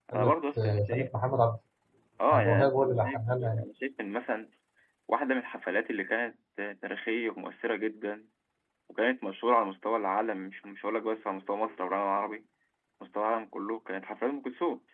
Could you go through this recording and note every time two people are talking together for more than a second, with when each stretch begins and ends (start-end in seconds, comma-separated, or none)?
2.3-3.6